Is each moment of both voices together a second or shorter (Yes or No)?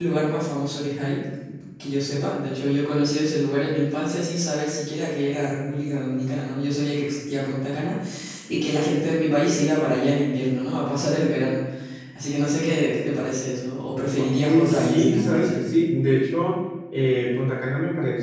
No